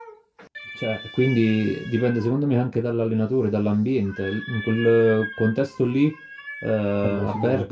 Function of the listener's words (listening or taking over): listening